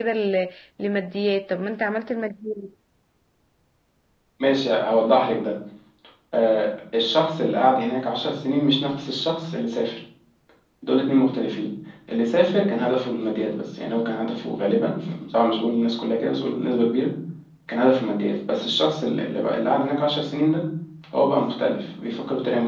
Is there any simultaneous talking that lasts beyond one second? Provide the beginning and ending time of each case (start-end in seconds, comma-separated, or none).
none